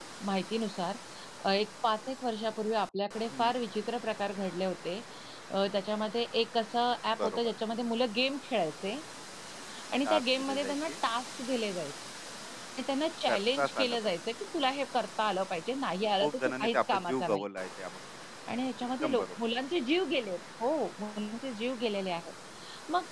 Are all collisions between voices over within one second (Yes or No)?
No